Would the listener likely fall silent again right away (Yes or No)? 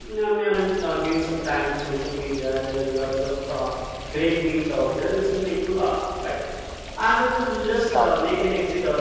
Yes